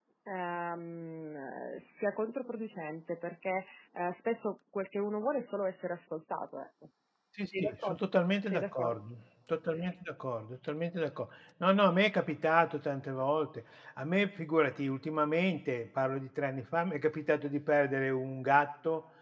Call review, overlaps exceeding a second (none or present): none